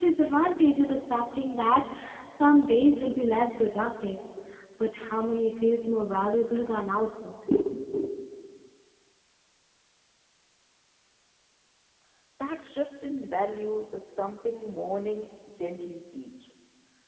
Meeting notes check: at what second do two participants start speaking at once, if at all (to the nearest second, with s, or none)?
none